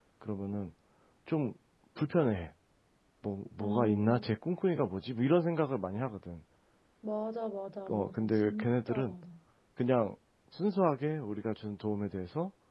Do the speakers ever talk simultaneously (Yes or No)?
Yes